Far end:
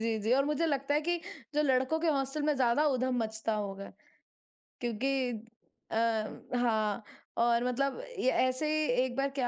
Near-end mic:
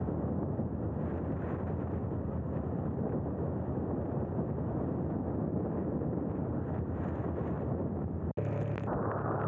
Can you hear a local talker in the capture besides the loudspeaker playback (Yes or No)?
No